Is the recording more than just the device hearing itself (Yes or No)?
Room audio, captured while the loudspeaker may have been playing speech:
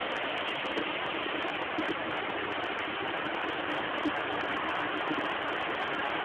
No